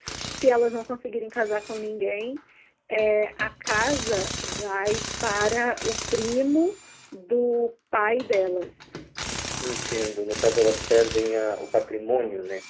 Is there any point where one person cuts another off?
No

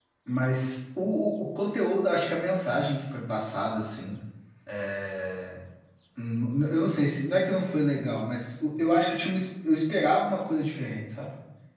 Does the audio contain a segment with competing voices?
No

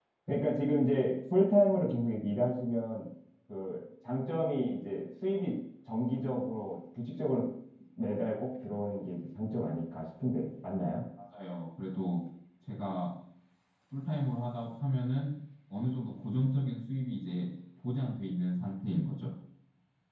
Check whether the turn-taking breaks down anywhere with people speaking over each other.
No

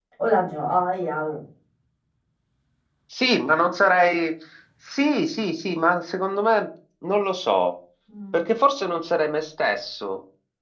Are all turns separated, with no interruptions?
Yes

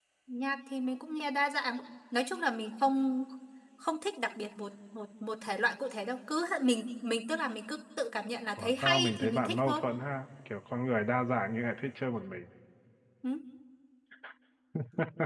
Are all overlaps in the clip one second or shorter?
No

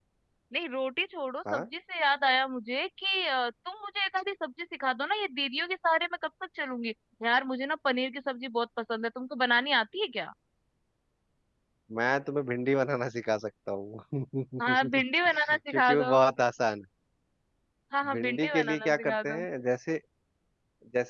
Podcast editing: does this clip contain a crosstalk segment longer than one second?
Yes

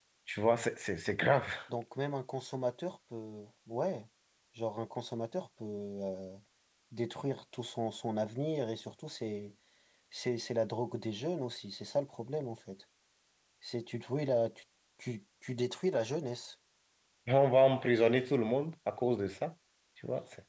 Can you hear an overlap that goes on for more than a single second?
No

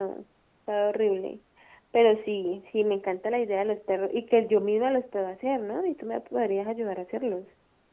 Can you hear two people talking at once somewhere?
No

